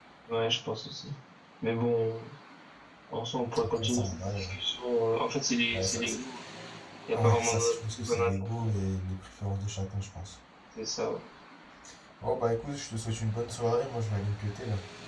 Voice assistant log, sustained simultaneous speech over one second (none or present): present